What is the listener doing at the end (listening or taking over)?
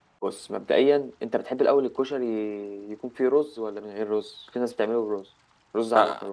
taking over